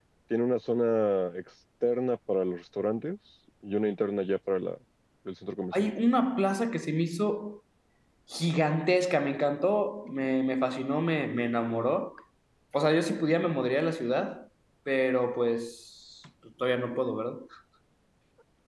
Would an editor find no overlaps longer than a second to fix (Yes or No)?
Yes